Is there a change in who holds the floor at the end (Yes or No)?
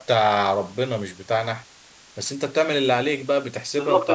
Yes